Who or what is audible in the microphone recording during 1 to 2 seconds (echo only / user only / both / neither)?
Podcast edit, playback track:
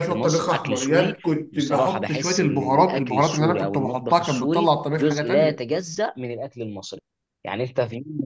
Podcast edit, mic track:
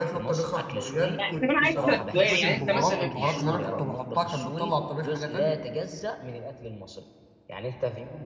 both